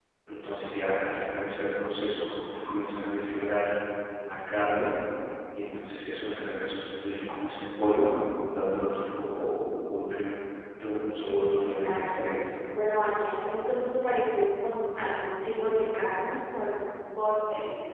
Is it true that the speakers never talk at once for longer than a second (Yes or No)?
No